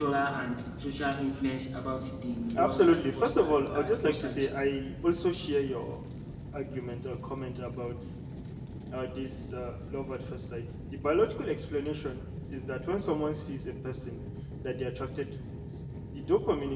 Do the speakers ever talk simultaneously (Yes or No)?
Yes